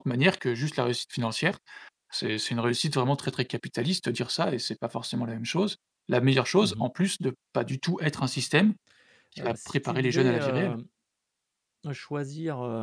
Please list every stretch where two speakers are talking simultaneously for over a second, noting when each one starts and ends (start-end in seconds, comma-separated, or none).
9.4-10.7